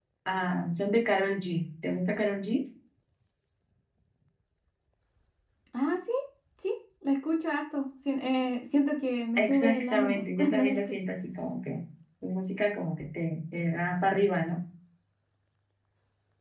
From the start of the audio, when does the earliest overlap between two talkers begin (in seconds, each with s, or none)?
9.4 s